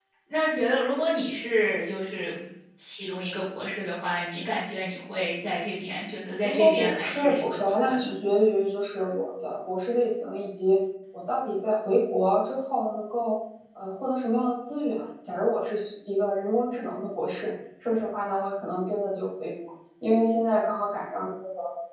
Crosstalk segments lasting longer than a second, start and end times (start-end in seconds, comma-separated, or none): 6.4-8.1